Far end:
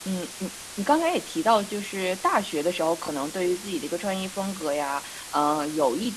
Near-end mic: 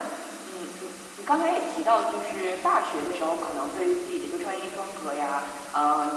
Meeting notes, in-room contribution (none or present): none